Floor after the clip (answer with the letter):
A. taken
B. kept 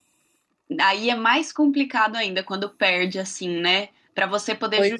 B